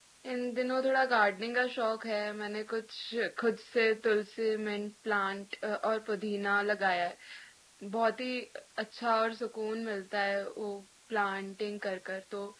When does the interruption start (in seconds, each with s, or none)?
none